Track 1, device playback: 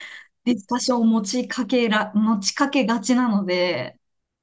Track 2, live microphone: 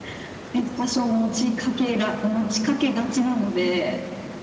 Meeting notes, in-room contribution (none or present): none